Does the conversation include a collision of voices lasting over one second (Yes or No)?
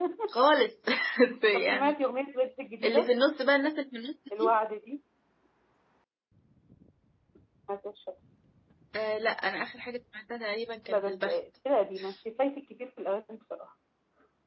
No